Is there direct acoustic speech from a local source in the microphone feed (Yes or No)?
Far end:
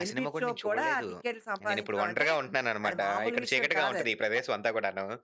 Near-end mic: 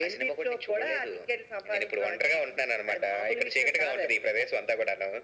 No